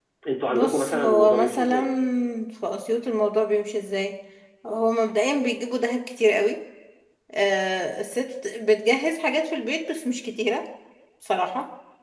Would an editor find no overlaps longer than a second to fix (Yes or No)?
No